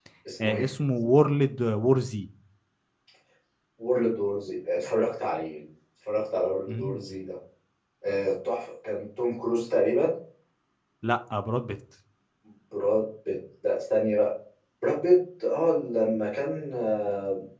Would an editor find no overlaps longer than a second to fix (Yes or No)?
Yes